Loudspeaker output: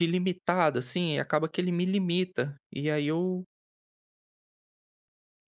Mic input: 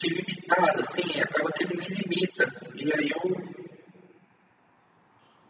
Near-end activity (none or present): none